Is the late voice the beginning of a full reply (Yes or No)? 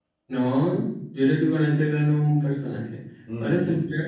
No